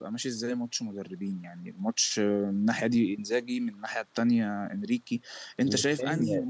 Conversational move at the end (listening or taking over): listening